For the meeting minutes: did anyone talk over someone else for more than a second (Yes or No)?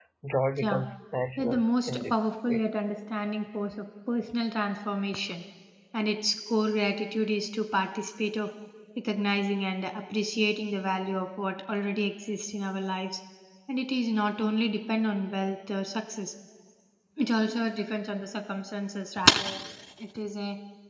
Yes